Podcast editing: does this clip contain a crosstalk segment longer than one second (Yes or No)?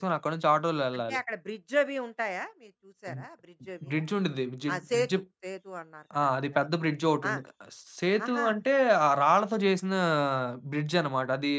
No